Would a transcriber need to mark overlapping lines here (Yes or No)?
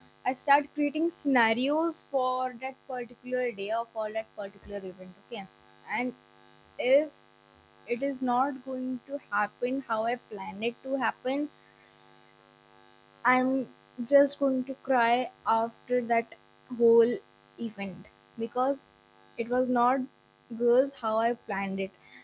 No